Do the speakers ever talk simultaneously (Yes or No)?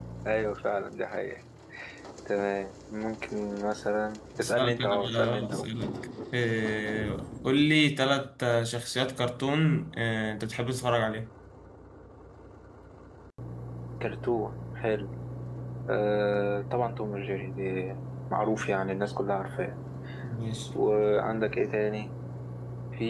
Yes